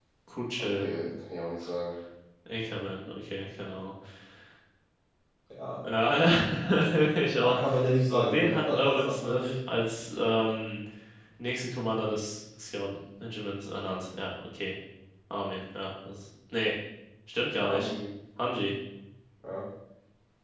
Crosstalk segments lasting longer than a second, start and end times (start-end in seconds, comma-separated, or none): 8.1-9.6